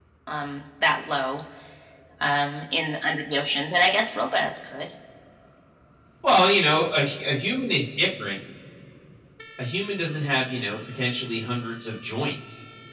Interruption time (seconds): none

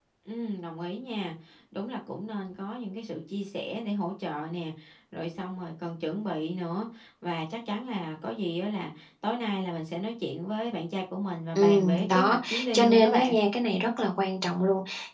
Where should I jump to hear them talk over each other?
11.6 s

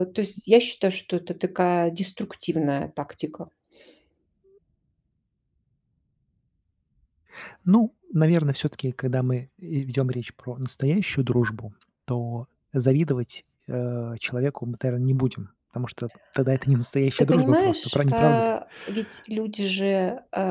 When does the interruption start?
17.2 s

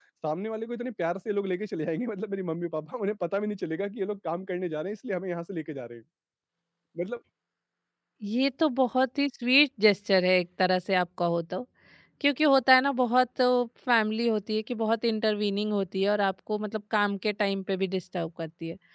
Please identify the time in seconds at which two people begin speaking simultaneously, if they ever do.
none

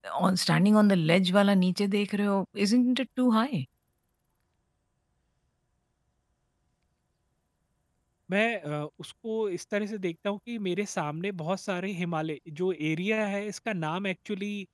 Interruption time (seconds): none

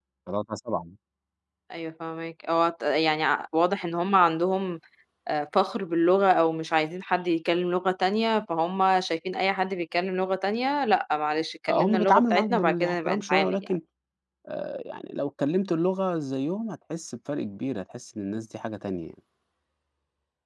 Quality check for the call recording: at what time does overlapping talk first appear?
11.7 s

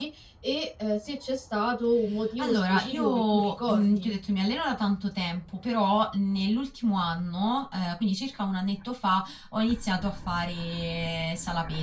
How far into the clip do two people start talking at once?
2.4 s

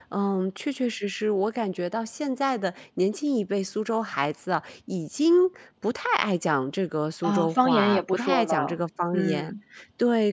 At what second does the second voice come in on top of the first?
7.2 s

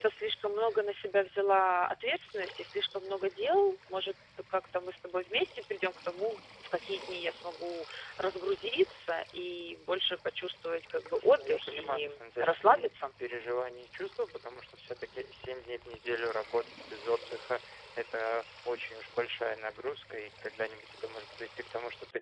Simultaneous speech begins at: 11.1 s

